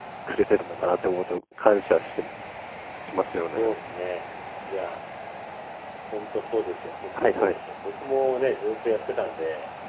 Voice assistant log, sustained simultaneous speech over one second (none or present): none